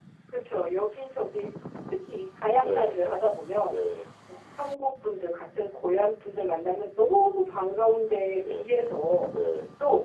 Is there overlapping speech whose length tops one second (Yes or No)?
No